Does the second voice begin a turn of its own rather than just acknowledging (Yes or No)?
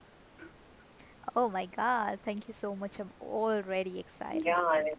Yes